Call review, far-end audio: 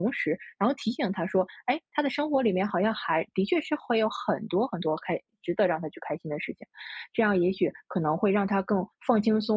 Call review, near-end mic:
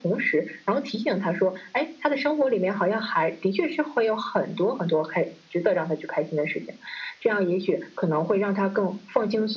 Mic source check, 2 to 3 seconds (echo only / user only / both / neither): echo only